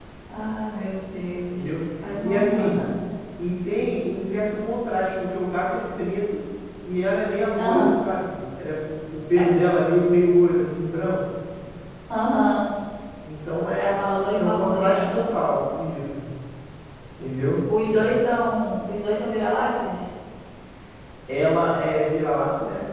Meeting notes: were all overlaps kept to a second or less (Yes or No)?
No